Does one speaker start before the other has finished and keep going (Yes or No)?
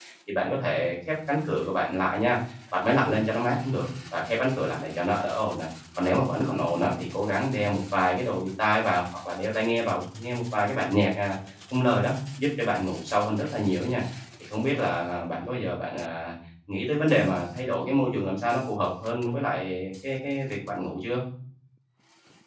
No